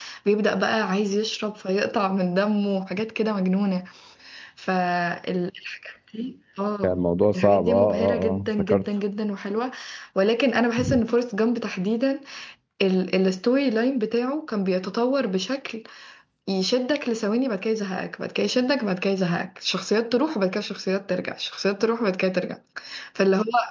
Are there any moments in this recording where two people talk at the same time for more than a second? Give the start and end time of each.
7.4-8.8

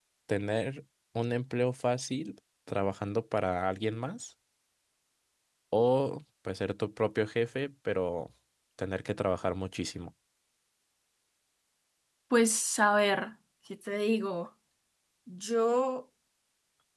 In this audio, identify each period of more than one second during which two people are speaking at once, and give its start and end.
none

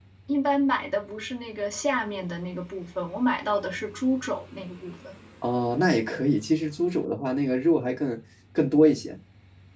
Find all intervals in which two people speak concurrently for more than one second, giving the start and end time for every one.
none

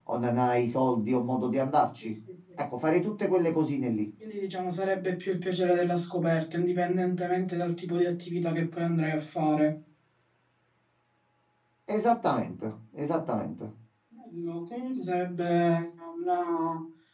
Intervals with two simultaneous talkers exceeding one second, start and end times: none

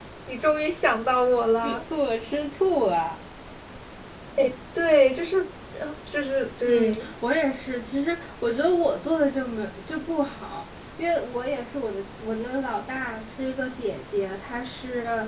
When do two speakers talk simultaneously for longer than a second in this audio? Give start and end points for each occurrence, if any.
none

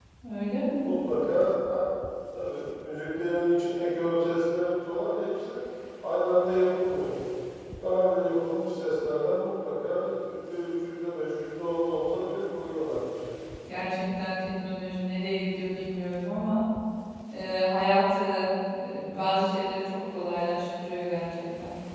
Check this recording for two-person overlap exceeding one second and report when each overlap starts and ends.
none

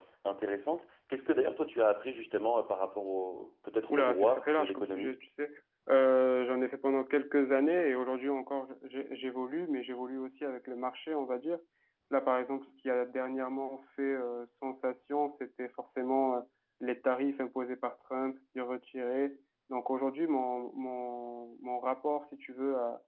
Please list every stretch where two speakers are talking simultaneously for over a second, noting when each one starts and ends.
3.9-5.1

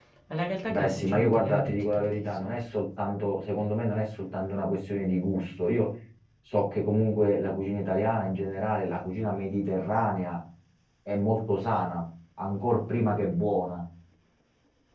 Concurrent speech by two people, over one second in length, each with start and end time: 0.7-2.6

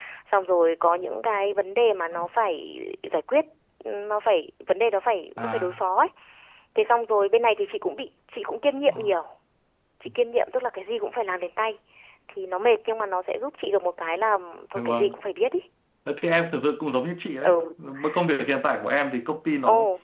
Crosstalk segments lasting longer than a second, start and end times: none

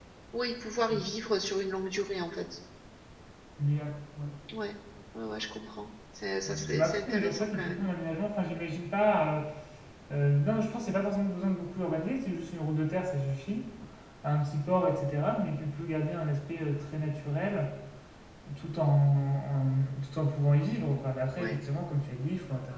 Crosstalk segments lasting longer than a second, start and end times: 6.4-7.9

